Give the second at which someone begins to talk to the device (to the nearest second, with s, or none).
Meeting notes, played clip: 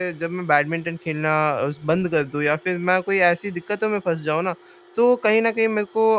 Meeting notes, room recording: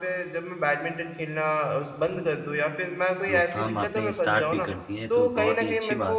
3 s